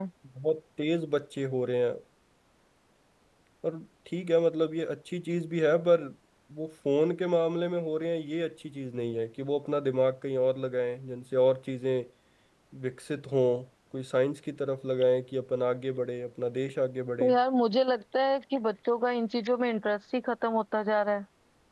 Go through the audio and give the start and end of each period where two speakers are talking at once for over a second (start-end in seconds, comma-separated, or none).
none